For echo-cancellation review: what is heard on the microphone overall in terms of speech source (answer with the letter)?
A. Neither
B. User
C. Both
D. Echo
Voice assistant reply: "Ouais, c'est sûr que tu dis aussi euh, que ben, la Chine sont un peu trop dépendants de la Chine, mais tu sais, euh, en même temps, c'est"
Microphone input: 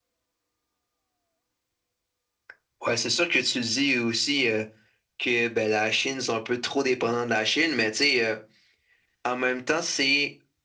D